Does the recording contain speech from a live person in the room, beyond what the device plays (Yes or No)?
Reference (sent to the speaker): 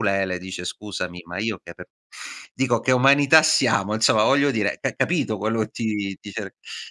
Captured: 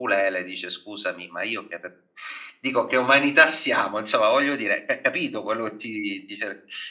No